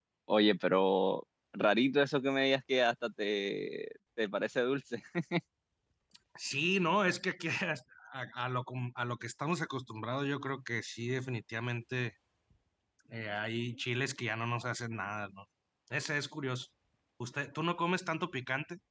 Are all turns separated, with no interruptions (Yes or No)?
Yes